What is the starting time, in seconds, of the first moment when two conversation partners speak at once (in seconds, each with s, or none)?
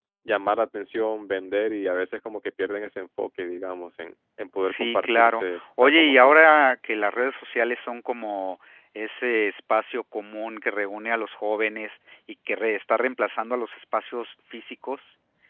4.6 s